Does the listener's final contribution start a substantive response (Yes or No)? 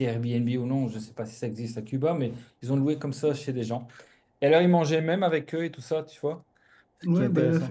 Yes